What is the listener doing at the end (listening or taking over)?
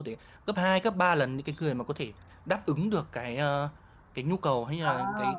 listening